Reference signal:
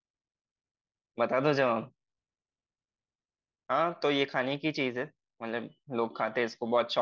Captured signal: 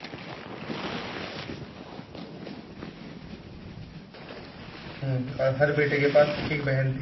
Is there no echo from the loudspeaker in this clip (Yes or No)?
Yes